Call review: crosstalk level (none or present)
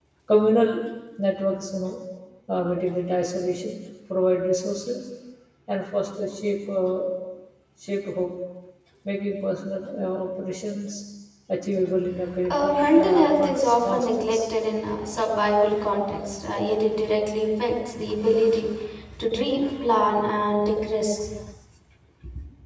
present